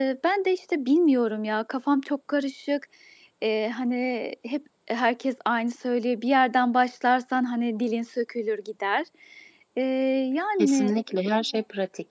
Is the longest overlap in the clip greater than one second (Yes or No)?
No